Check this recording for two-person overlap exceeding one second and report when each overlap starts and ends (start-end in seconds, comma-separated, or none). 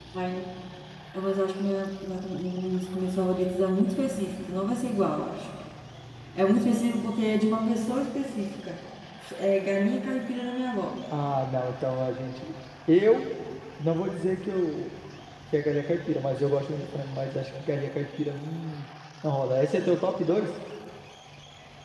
none